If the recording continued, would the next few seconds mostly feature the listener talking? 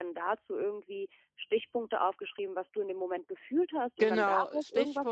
Yes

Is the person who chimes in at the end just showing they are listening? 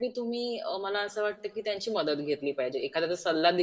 Yes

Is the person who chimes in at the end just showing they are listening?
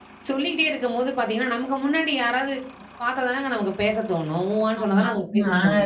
No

